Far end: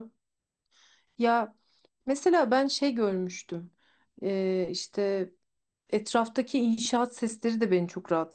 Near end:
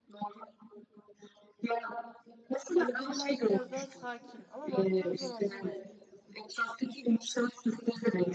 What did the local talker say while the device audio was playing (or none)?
Hani buralar biraz daha sakin ama baktığın zaman hani